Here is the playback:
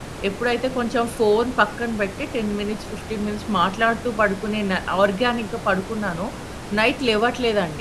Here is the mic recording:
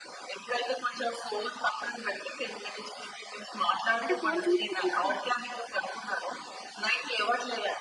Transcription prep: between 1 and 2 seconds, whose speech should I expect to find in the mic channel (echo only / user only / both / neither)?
echo only